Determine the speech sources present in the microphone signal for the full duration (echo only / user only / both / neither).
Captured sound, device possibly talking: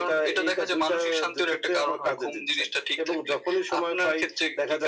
echo only